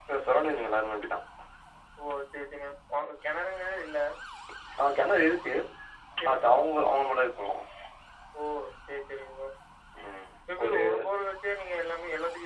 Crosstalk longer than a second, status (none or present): none